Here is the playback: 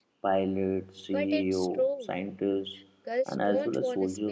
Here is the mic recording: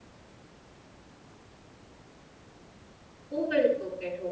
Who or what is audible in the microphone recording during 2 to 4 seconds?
user only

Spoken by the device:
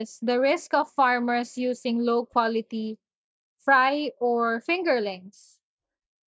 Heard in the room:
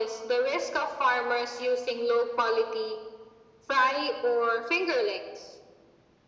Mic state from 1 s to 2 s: echo only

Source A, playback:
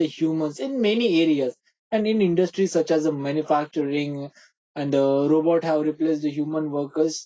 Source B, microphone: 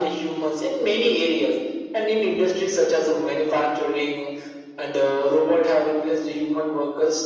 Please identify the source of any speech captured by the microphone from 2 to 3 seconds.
echo only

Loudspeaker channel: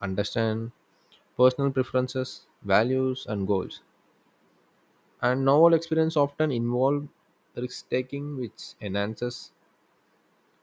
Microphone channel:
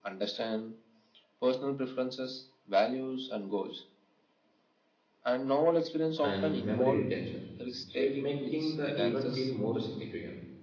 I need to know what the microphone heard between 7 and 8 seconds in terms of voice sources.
both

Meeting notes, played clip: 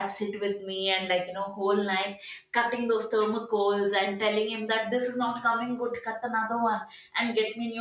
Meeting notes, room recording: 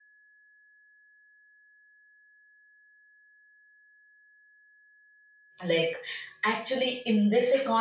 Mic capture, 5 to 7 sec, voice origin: user only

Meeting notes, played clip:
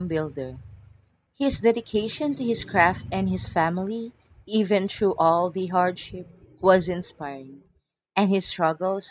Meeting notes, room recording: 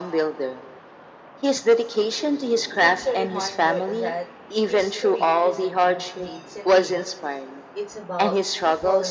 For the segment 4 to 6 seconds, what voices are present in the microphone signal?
both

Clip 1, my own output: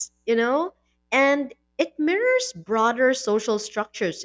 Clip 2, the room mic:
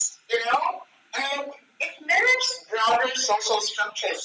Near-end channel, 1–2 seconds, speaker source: echo only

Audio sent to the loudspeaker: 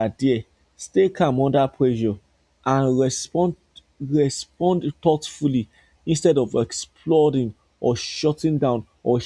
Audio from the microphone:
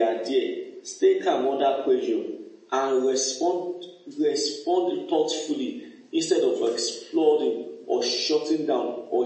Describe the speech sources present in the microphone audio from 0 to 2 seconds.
echo only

